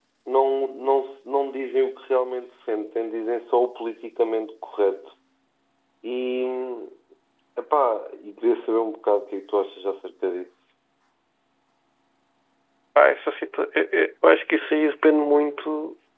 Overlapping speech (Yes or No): No